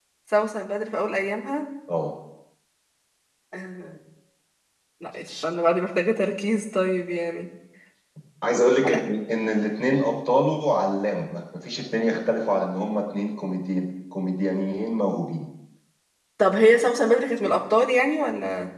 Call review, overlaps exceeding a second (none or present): none